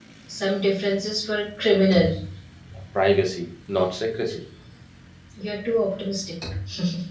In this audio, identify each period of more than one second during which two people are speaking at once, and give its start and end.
none

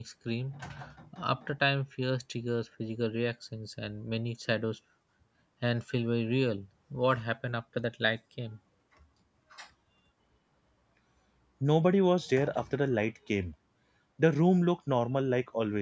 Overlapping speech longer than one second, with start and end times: none

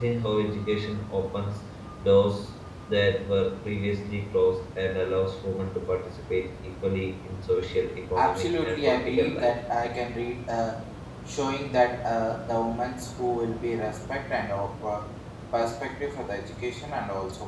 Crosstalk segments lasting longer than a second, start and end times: 8.2-9.5

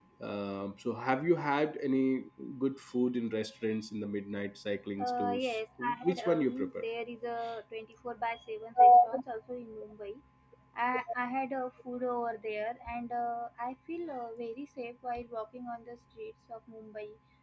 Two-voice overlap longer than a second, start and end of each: 5.0-6.8

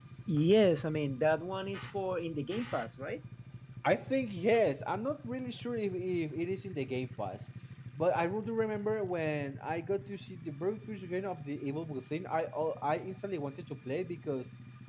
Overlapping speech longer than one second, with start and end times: none

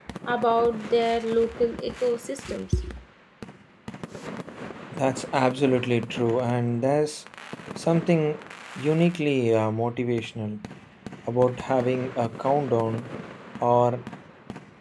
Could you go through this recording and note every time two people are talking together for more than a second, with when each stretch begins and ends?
none

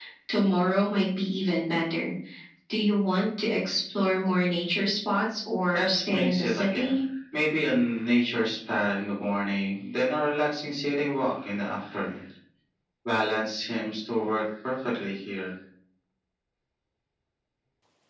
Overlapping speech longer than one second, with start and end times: 5.7-7.0

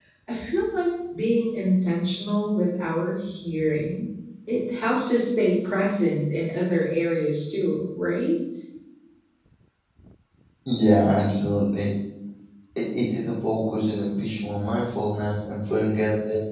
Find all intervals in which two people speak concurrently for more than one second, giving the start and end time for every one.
none

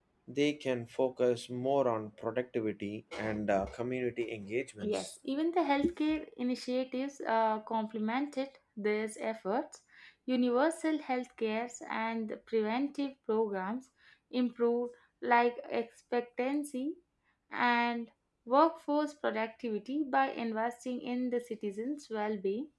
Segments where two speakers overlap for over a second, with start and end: none

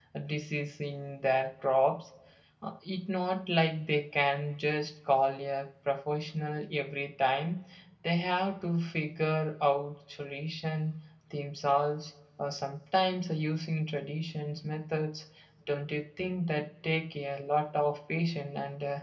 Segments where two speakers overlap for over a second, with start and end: none

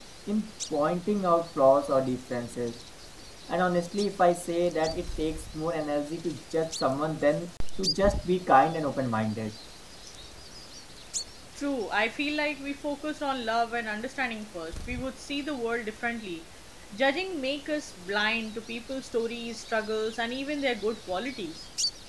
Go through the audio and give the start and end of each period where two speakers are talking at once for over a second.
none

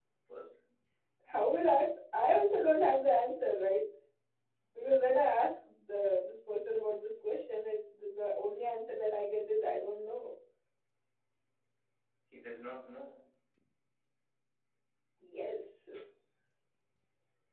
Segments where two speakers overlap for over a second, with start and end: none

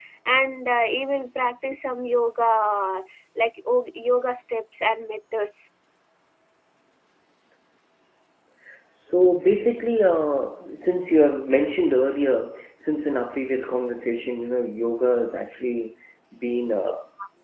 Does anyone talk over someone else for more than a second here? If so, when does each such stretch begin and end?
none

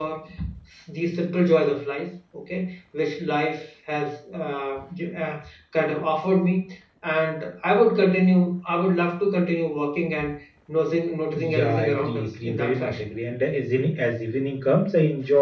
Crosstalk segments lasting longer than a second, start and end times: 11.3-13.0

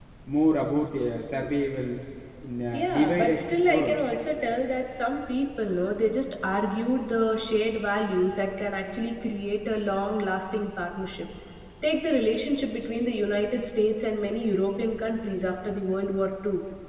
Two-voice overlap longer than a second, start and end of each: 2.7-4.0

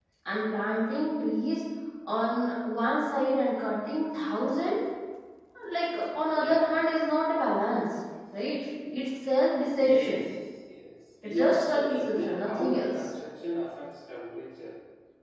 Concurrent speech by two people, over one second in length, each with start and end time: 11.2-13.1

